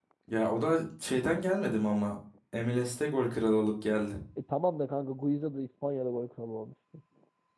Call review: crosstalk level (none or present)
none